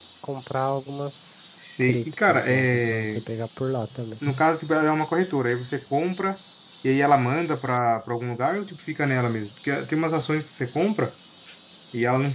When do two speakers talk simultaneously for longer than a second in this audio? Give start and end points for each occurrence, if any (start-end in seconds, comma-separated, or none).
1.8-3.2